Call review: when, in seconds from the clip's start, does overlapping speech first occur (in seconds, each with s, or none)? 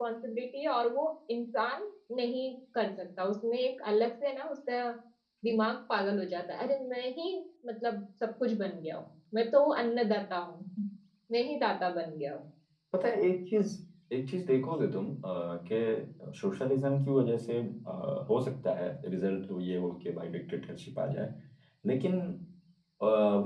none